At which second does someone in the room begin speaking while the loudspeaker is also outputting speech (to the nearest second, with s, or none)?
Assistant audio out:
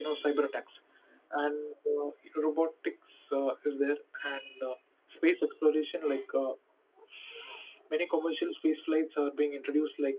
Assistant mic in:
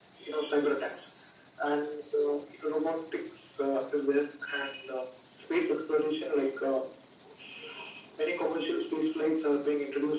none